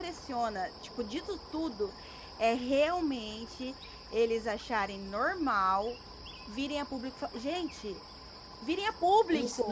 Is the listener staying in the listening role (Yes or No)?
No